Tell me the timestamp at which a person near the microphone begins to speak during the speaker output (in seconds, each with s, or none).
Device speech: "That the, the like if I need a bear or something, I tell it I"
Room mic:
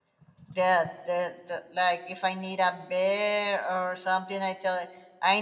none